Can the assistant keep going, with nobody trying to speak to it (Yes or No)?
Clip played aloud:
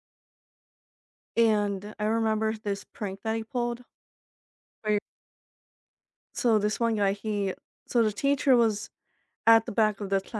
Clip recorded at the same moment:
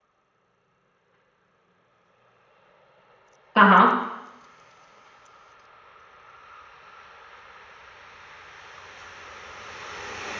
No